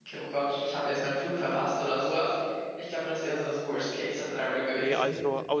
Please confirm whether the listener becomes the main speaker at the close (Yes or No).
Yes